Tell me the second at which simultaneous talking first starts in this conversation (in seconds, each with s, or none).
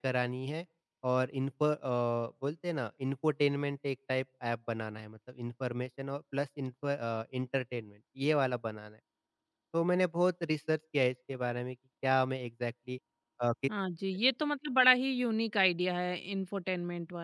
none